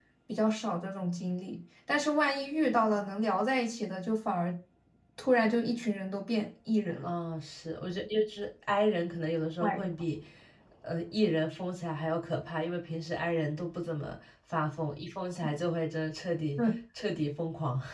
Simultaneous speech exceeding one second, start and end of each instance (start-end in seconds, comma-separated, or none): none